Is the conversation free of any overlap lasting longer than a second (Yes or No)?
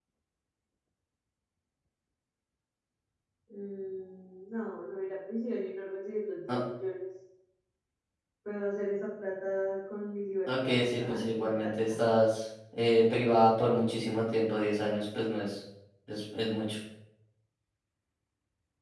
No